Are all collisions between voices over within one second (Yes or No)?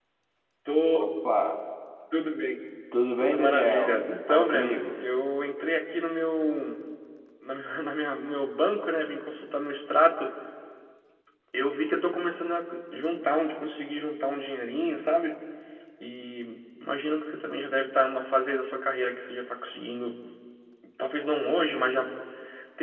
No